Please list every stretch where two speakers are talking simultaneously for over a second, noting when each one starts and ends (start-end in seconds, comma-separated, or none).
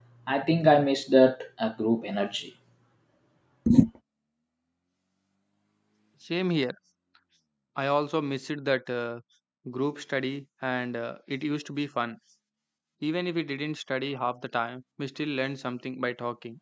none